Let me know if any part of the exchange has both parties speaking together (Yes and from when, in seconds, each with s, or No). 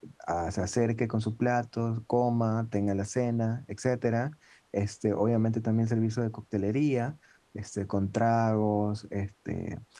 No